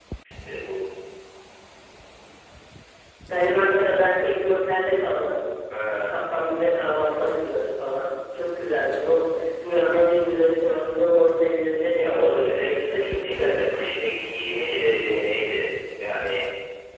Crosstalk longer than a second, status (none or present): present